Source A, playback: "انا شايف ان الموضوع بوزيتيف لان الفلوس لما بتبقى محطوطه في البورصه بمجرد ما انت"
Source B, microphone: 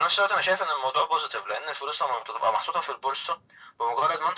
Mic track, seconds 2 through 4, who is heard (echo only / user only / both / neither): echo only